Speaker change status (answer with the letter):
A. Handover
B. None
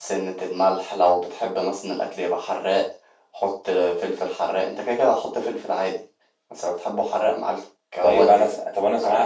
A